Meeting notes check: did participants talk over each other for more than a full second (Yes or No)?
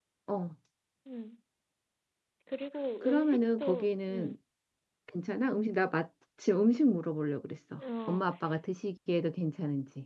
Yes